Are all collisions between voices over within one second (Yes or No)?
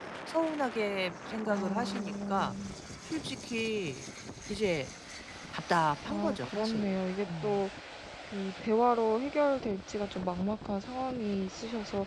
No